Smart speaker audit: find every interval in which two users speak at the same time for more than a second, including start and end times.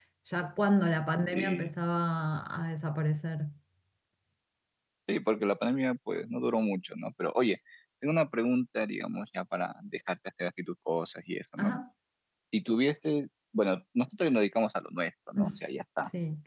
none

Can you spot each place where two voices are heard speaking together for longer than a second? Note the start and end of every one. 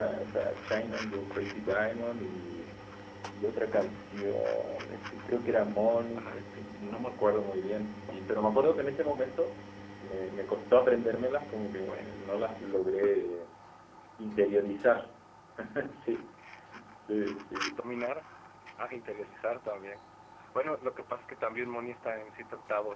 none

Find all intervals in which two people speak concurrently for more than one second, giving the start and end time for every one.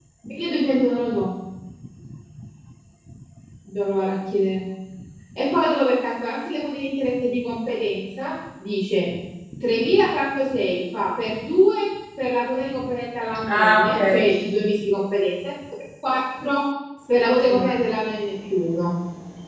13.5-14.7

